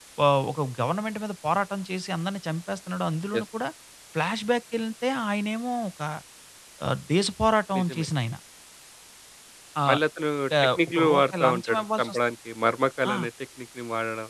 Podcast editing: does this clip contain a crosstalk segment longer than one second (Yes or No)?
Yes